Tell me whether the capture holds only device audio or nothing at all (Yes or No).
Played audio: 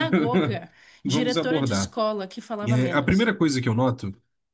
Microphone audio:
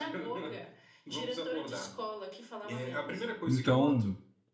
No